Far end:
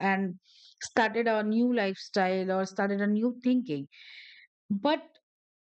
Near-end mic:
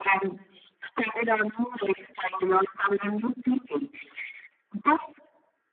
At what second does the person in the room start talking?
none

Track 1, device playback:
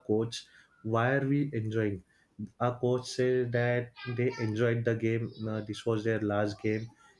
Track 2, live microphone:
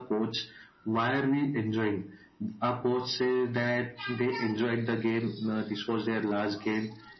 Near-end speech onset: none

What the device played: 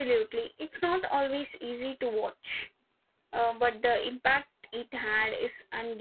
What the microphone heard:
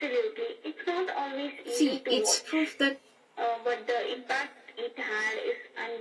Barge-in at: 1.6 s

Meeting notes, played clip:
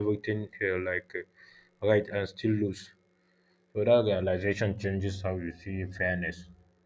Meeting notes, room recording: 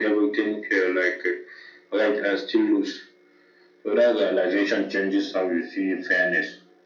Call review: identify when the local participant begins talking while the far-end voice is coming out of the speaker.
none

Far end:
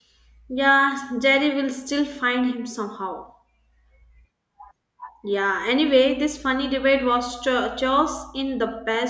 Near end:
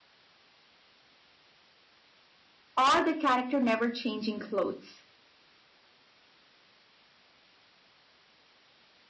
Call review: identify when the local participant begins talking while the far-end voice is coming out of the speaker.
2.8 s

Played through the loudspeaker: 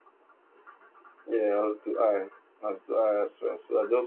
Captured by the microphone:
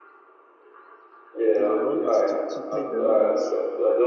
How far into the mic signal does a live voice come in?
1.5 s

